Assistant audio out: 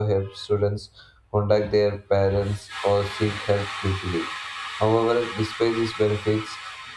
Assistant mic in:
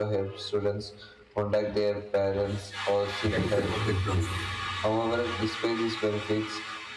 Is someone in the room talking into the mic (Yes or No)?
Yes